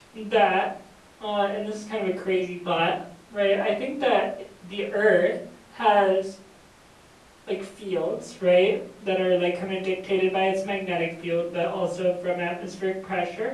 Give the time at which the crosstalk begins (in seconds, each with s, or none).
none